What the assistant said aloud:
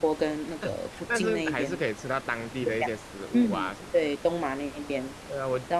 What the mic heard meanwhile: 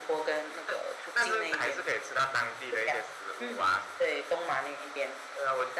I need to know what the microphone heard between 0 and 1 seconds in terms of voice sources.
echo only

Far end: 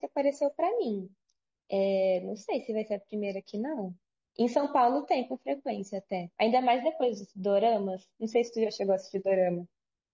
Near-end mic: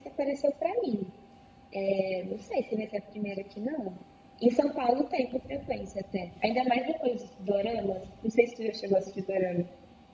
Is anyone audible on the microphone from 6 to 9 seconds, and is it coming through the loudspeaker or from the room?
echo only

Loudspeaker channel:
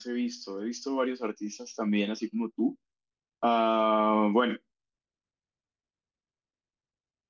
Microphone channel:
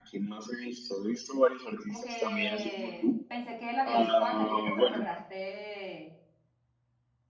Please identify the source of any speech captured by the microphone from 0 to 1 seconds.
echo only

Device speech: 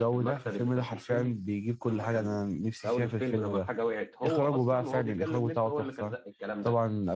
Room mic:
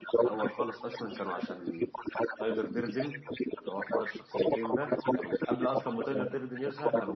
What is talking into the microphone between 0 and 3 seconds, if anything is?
both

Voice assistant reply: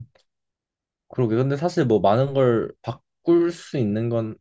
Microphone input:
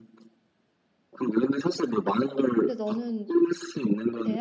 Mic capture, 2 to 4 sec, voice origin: both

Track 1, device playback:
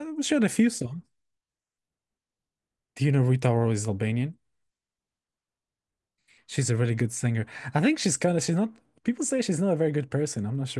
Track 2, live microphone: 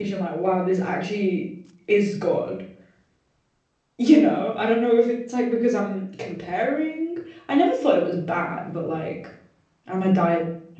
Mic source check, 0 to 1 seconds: user only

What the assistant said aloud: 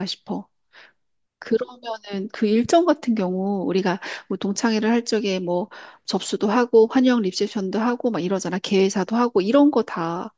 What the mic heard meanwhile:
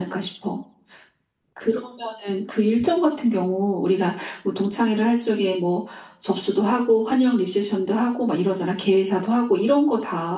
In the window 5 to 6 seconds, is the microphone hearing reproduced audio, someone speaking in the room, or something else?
echo only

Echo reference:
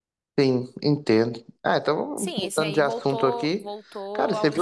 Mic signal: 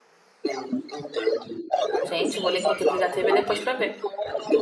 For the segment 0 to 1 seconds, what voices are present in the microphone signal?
echo only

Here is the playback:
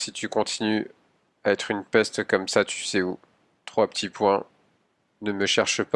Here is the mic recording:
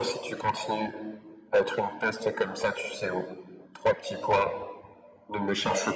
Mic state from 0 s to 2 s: echo only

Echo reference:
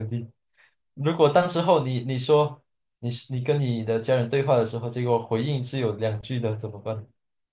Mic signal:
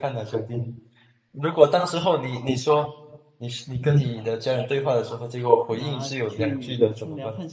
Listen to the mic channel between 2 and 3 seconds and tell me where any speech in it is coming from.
echo only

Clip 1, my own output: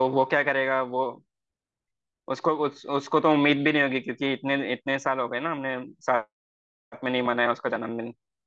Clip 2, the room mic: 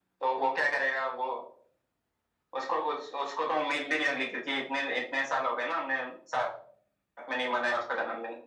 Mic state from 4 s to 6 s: echo only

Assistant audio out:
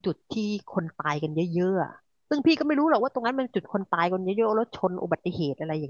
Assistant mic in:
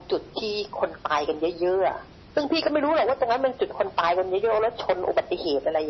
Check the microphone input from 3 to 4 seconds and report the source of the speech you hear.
echo only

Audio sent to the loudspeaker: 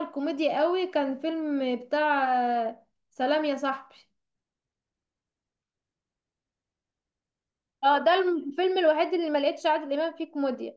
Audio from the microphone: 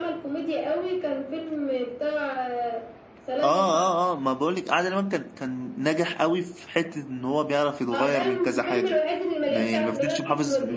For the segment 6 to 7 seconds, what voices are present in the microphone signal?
user only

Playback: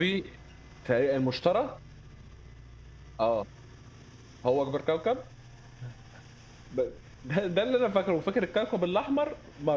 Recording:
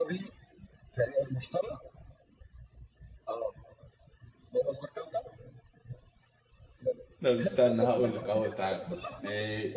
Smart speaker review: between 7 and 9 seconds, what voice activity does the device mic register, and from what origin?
both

